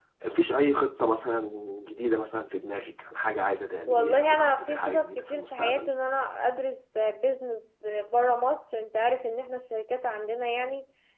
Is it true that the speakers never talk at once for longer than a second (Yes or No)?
No